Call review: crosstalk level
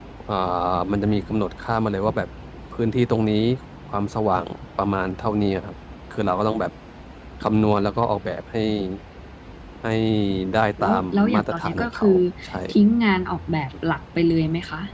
present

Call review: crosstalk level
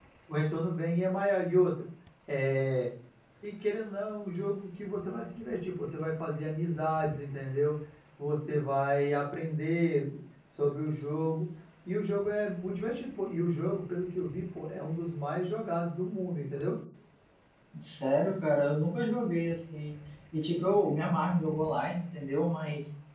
none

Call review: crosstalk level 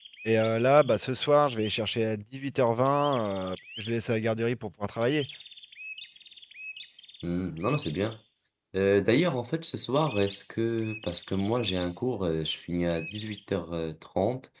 none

